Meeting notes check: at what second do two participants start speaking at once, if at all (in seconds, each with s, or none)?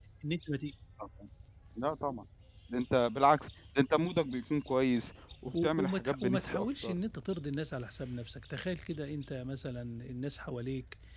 5.5 s